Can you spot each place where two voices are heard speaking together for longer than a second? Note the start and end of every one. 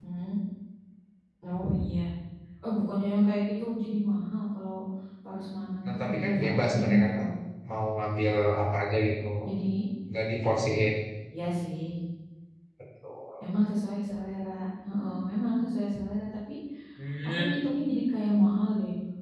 5.8-7.2

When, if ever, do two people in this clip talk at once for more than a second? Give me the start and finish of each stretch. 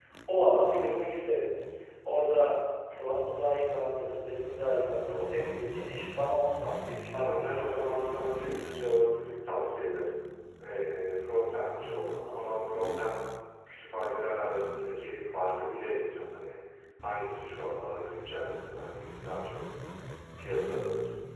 7.1-8.6

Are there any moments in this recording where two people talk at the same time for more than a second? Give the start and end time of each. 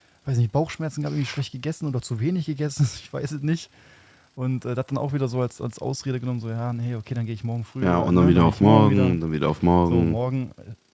7.8-9.2

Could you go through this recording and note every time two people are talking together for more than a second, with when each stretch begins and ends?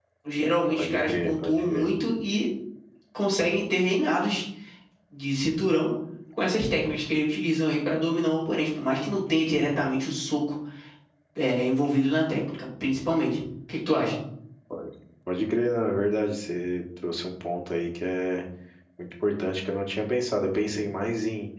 0.7-1.9

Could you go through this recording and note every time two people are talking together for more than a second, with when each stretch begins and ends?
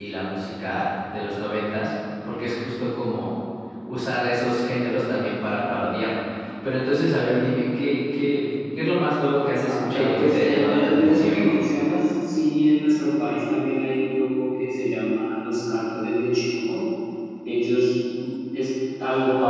9.7-11.4

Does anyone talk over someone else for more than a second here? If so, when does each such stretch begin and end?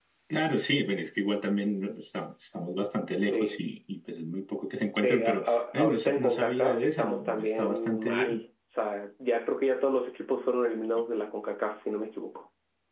5.0-8.4

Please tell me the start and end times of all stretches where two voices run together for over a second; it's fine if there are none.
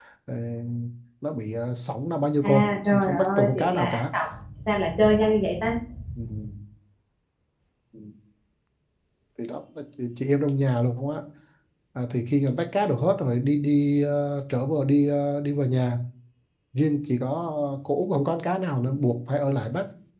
2.4-4.0

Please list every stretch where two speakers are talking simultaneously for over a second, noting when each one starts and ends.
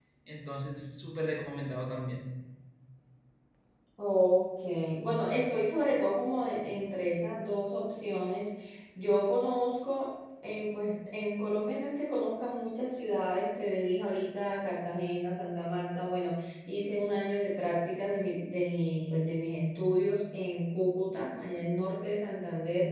none

